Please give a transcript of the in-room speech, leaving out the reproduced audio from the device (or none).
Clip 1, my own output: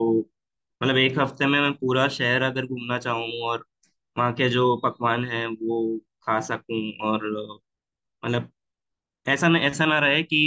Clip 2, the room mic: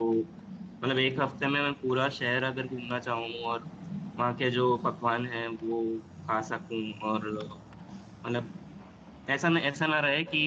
none